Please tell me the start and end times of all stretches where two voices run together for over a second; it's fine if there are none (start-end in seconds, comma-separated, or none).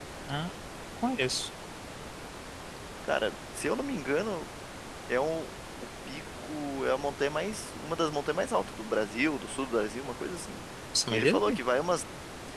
none